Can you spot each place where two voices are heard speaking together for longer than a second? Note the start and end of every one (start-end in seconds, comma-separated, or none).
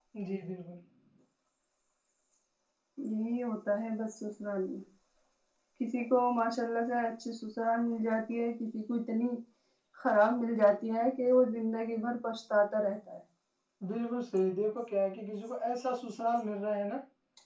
none